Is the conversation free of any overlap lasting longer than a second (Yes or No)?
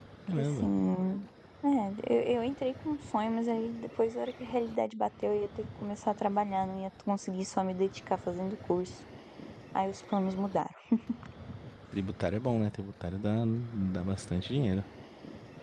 Yes